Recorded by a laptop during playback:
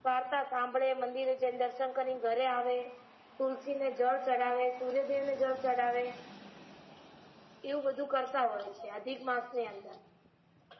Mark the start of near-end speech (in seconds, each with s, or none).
none